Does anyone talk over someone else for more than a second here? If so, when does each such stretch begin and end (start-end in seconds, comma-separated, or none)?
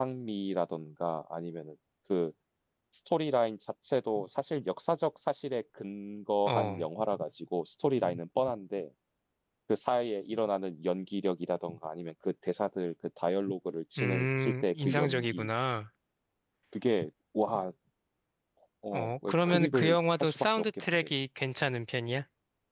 14.0-15.5, 18.9-21.1